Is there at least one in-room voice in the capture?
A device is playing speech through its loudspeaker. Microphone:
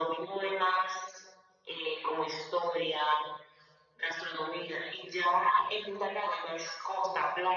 No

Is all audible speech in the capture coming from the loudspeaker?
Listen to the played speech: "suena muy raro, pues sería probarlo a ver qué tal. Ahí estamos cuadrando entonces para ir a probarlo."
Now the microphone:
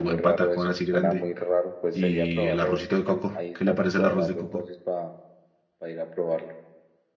No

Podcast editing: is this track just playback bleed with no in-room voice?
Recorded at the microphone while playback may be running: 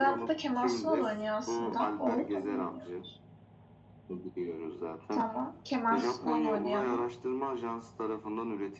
No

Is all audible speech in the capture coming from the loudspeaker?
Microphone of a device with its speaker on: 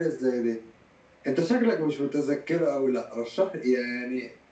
Yes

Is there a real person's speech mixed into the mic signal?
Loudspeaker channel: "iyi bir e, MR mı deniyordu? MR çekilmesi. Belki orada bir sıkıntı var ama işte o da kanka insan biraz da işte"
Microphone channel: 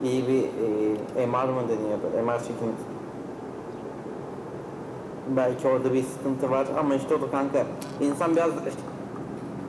No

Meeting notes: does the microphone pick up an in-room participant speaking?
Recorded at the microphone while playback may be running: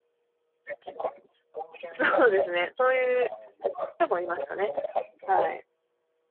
Yes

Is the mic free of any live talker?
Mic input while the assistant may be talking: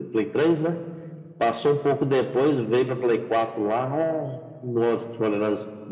Yes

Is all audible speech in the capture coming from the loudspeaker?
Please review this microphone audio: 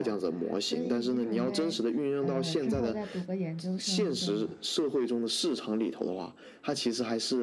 No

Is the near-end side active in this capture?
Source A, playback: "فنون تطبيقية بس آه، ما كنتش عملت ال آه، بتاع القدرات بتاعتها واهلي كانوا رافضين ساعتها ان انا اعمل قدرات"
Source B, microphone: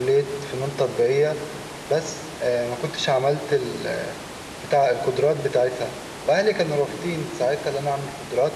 No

